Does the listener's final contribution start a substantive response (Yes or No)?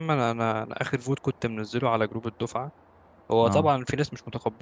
No